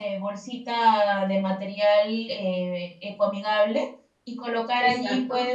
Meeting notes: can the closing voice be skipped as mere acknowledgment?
Yes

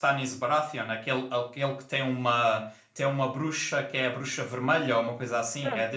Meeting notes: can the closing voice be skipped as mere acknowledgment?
No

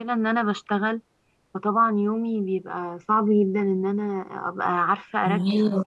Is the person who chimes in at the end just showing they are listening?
Yes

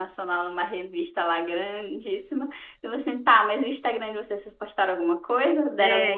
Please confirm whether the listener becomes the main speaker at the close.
Yes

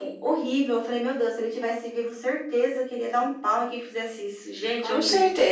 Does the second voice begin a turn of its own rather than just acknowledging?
Yes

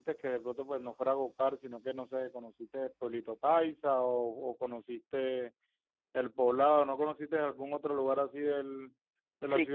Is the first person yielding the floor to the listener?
Yes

